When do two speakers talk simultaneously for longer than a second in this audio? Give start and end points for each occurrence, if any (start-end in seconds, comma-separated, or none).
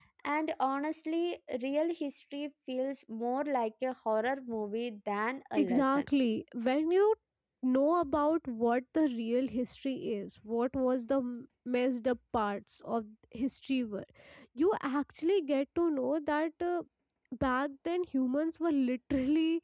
none